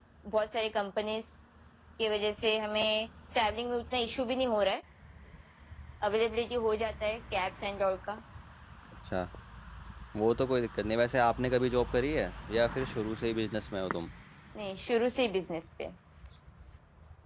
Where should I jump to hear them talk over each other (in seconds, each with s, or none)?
none